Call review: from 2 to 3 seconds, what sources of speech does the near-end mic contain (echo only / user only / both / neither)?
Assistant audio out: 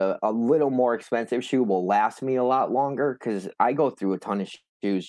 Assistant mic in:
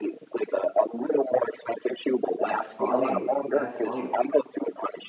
both